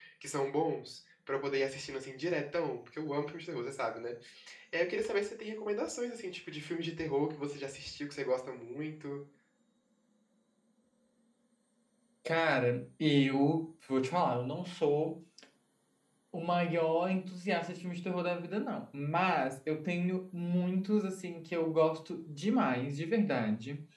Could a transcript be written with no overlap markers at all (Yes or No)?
Yes